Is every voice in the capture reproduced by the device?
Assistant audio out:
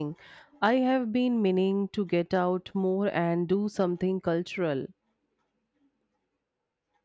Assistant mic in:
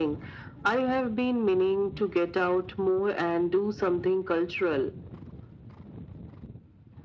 Yes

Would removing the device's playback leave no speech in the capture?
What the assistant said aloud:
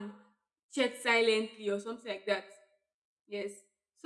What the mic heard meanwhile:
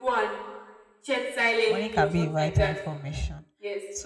No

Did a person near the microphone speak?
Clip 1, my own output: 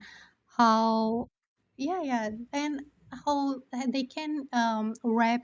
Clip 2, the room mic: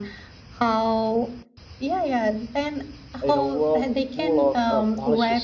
Yes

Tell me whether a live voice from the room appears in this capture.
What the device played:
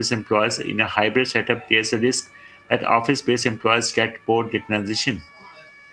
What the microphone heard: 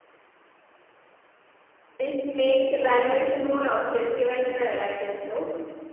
Yes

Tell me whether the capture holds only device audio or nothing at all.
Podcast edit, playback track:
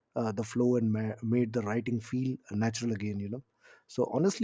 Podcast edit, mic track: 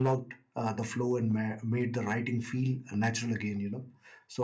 Yes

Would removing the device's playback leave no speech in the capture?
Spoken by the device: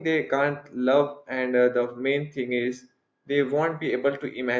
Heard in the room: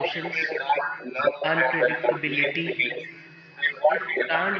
No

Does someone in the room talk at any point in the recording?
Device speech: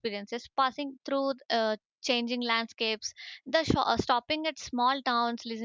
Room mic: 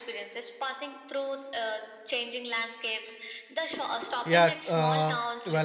Yes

